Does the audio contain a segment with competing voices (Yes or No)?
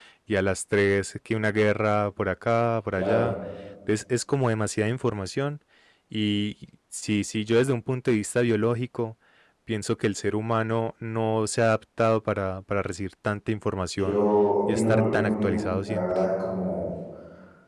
Yes